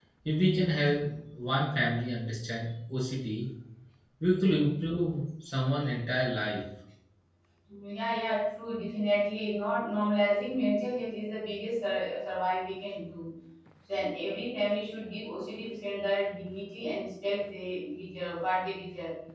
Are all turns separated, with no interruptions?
Yes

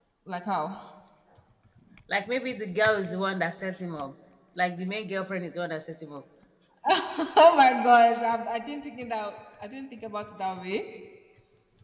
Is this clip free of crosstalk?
Yes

